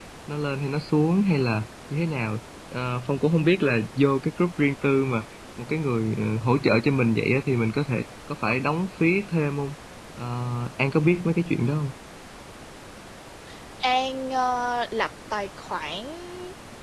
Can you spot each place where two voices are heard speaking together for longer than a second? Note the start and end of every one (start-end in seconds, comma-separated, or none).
none